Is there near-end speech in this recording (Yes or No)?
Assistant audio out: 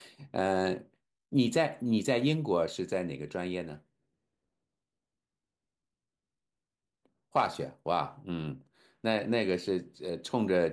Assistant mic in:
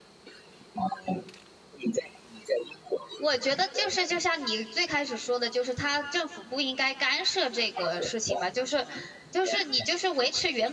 Yes